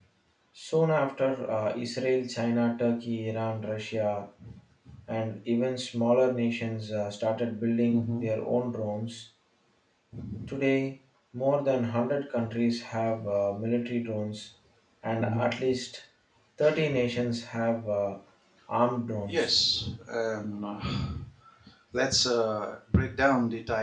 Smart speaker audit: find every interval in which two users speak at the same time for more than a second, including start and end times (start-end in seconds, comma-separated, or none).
none